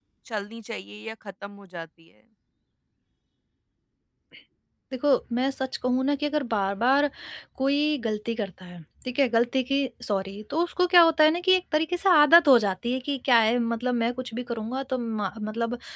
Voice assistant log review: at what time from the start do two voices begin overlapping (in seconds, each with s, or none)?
none